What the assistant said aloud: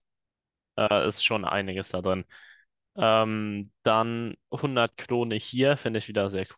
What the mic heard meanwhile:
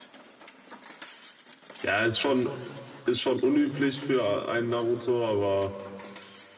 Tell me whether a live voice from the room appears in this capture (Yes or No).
Yes